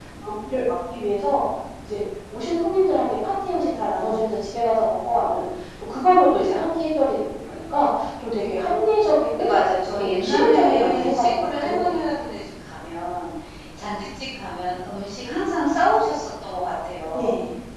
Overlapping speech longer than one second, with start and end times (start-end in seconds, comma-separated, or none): 10.0-12.0